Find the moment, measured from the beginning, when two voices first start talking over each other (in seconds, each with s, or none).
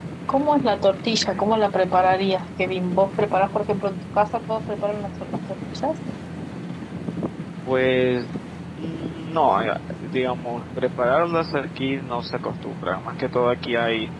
none